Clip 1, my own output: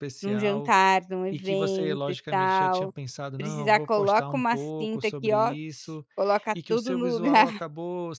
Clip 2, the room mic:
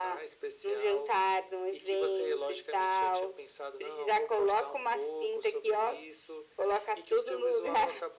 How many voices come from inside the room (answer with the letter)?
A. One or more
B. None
B